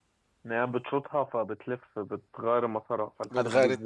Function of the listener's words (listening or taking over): taking over